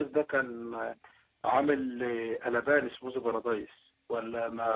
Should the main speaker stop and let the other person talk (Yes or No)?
Yes